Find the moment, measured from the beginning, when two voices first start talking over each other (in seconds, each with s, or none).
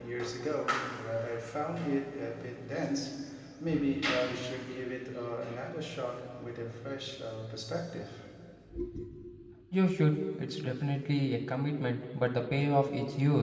none